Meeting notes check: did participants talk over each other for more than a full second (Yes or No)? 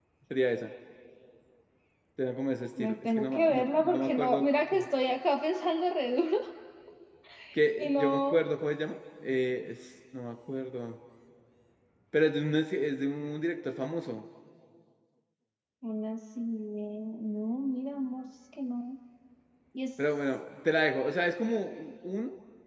Yes